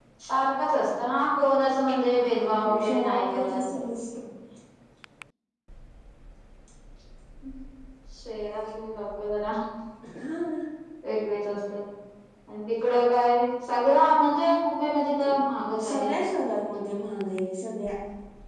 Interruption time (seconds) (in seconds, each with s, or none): 2.1 s